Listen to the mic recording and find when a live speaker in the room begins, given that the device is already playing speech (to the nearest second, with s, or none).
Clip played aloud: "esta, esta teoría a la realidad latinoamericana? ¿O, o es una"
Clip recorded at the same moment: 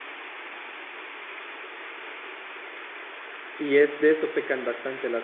4 s